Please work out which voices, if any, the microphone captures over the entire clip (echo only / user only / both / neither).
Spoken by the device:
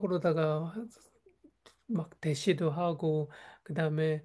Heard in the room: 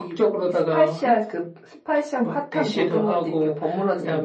both